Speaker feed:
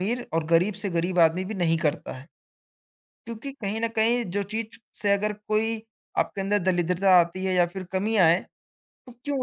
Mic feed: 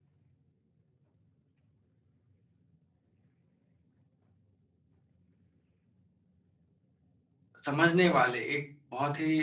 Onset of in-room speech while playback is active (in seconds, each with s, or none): 7.6 s